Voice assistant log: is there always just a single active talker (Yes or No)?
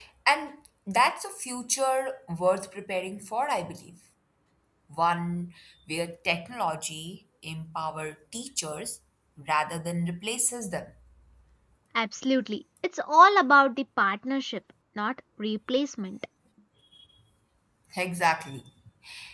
Yes